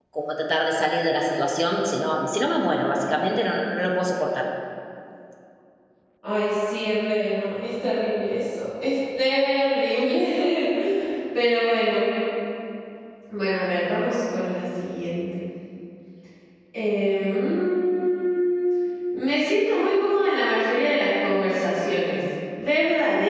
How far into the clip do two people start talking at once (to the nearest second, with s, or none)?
none